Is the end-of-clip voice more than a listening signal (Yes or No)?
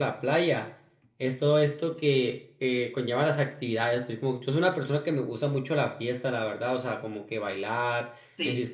No